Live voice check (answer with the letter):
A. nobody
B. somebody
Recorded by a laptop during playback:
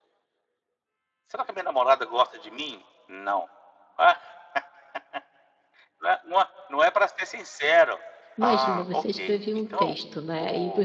B